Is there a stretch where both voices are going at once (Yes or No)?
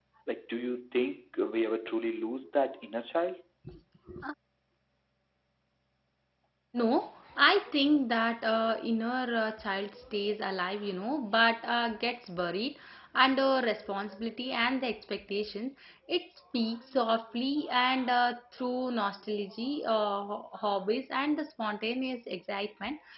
No